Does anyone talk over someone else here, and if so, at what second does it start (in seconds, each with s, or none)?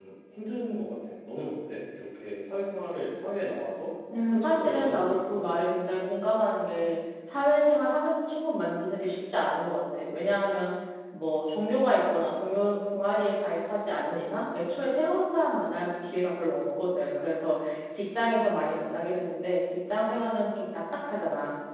4.1 s